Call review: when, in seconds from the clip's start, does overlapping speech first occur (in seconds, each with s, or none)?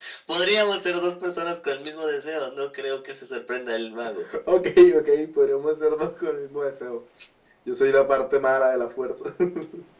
none